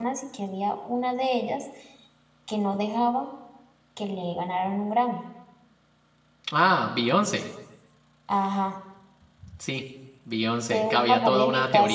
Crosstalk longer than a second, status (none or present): present